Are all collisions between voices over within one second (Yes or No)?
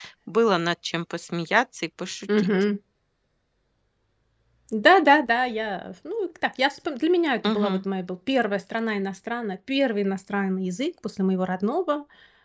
Yes